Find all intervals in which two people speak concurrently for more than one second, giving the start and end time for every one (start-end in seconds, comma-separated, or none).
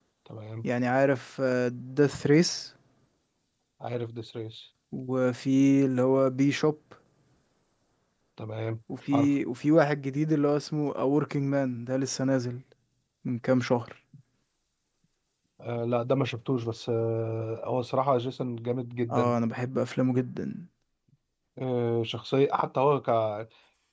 none